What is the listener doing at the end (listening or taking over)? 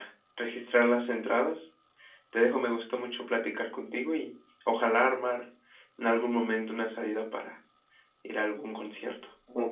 taking over